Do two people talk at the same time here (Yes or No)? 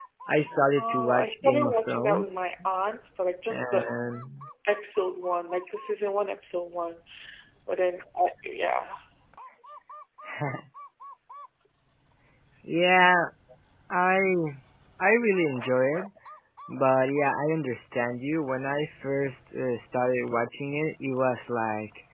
Yes